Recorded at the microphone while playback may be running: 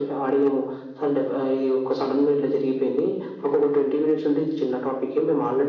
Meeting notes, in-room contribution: none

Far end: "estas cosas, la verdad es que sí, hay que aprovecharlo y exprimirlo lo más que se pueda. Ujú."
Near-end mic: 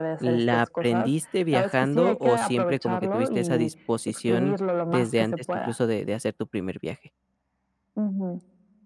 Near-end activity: present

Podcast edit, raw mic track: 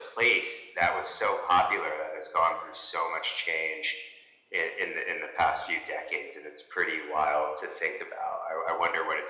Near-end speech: none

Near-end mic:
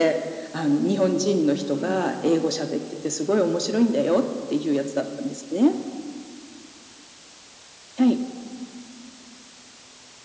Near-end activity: present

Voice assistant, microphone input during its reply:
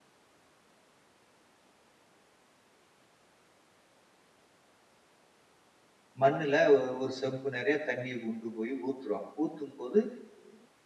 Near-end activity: present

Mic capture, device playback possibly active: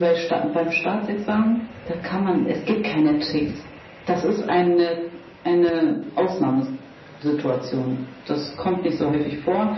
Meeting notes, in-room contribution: none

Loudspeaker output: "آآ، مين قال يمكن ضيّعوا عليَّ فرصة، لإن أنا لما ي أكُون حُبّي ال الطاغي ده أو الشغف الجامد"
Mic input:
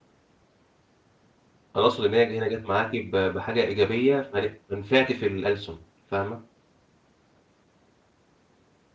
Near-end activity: present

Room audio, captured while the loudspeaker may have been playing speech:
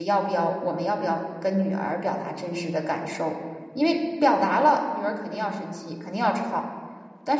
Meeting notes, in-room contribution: present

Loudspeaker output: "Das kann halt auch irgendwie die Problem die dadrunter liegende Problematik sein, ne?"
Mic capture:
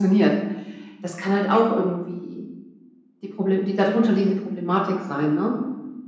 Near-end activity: none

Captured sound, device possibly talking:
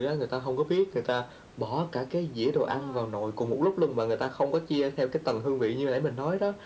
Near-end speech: present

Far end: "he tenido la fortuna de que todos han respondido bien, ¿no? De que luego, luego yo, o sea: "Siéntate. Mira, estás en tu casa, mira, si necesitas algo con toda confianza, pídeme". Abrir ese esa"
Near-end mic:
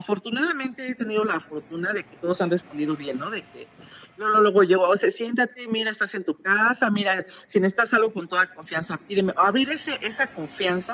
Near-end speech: none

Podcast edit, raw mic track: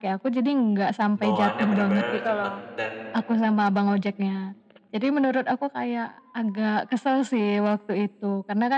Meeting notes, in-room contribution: present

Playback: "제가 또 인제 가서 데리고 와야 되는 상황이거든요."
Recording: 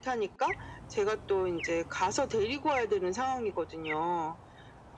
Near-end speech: none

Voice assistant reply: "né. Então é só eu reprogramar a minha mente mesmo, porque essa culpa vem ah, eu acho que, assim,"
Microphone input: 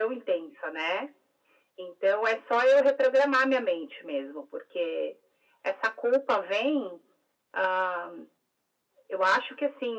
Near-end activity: none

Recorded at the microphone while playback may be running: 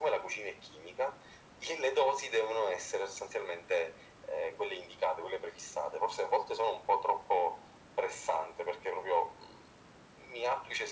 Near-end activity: none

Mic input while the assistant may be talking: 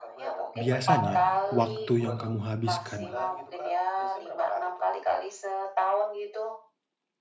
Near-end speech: present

